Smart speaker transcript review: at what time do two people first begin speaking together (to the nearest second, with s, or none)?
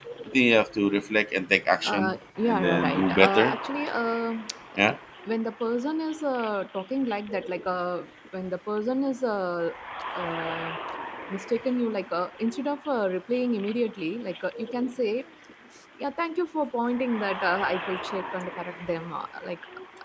2 s